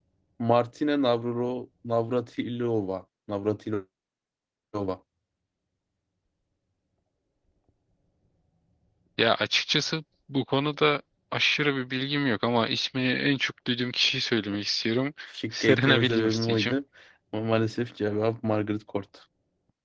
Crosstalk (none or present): present